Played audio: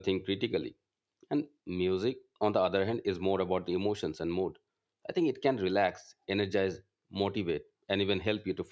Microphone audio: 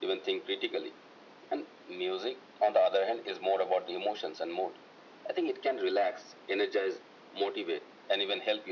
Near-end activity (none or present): none